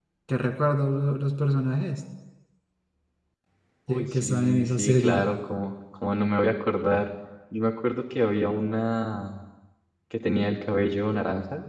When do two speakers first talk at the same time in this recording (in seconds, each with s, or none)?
3.9 s